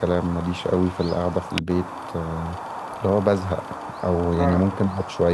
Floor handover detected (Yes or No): No